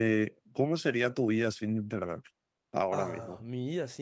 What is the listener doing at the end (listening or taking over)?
taking over